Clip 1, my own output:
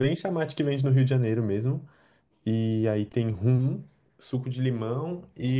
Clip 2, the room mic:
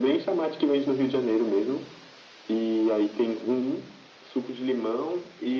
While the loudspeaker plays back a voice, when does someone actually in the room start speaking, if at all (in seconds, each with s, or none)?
none